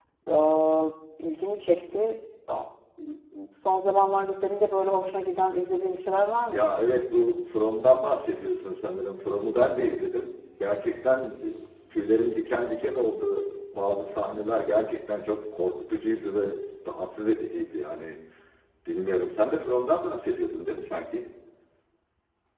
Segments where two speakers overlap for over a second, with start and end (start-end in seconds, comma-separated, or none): none